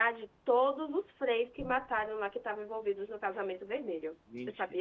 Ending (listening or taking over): taking over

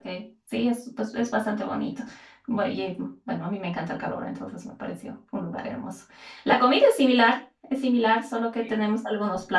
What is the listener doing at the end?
listening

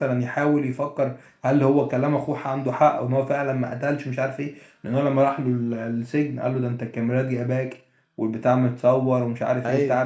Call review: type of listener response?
listening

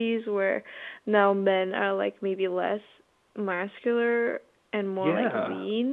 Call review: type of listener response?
taking over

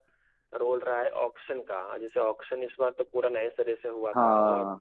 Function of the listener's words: listening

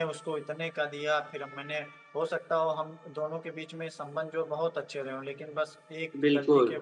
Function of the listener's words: listening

